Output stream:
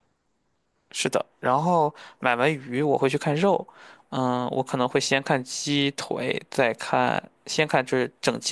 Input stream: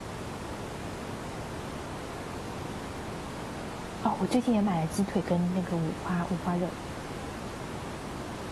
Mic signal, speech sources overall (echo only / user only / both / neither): user only